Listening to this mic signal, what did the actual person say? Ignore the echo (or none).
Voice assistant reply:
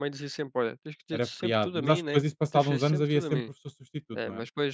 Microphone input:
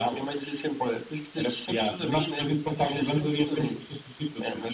none